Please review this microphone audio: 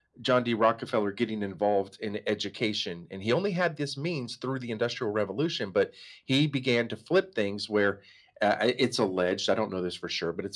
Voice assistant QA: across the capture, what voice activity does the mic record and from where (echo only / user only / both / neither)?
echo only